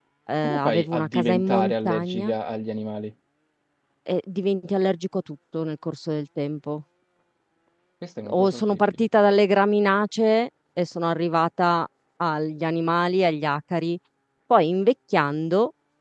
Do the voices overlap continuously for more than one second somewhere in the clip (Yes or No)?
Yes